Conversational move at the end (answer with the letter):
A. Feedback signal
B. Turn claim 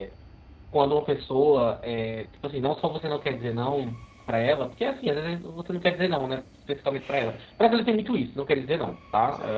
A